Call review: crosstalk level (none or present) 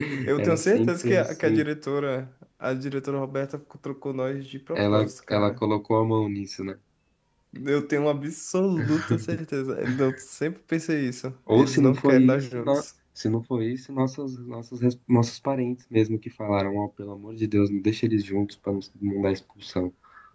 present